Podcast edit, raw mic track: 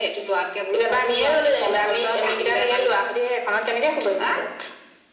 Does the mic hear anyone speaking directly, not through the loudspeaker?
No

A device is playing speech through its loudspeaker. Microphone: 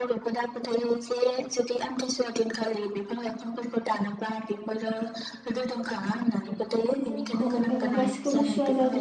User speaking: Yes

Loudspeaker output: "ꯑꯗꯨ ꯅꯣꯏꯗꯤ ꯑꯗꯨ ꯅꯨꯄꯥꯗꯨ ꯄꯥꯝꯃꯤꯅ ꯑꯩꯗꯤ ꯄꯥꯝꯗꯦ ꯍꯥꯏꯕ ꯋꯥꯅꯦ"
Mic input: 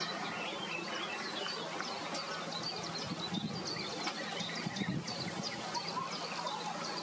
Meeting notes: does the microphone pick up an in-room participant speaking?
No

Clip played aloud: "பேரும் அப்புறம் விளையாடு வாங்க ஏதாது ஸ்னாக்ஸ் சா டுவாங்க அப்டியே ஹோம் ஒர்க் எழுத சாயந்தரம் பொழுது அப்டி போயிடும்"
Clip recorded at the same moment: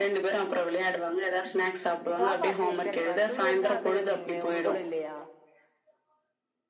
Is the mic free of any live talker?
No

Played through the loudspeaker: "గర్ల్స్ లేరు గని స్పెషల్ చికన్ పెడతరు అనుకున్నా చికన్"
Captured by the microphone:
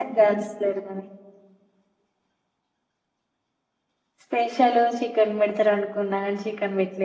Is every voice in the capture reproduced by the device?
Yes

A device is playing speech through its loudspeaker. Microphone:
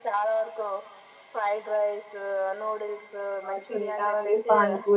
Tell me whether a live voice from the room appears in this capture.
Yes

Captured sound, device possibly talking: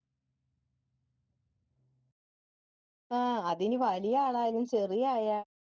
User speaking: Yes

